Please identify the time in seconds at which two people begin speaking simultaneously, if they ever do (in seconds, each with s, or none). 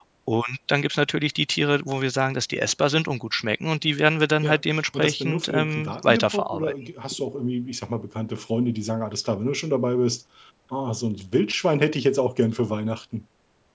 4.4 s